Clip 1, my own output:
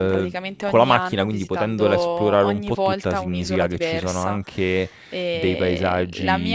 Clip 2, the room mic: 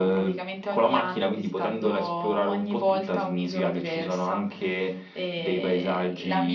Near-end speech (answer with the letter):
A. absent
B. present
A